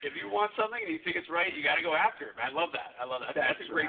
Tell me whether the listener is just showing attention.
No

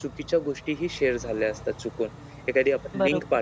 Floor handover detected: No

